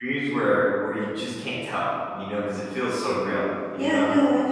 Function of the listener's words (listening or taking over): taking over